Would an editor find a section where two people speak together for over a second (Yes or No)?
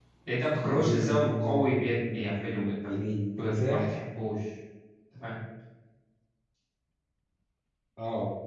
Yes